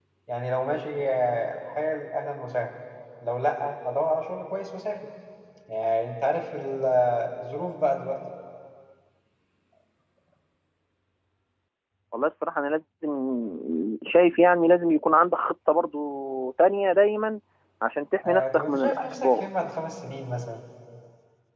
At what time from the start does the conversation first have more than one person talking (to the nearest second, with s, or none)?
18 s